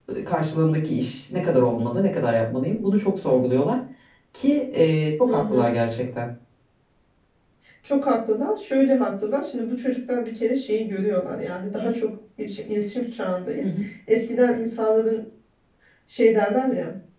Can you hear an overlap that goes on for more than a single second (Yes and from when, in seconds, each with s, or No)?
No